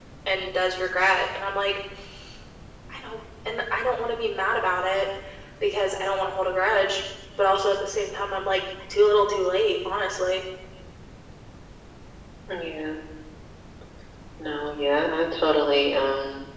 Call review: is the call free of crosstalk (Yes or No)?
Yes